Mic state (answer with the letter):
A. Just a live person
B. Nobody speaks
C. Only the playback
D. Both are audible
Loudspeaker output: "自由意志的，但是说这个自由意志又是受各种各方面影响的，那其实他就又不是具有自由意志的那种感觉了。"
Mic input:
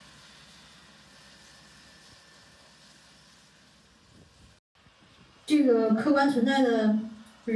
A